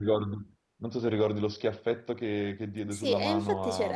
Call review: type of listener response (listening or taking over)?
taking over